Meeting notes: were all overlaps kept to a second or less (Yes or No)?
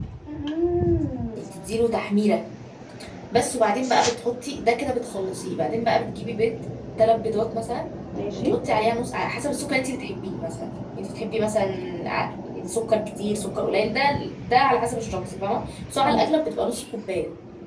Yes